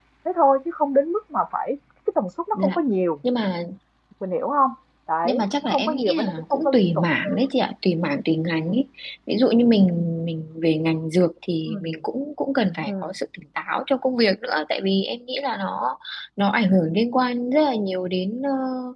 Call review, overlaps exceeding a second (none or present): present